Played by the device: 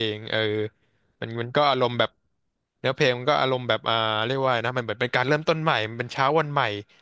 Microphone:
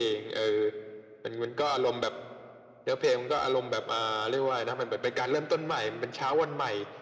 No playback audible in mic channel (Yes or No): No